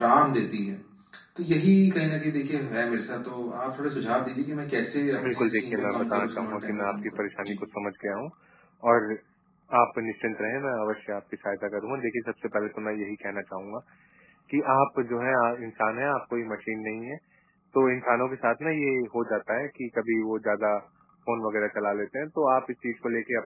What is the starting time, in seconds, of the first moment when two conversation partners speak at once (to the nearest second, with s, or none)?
5 s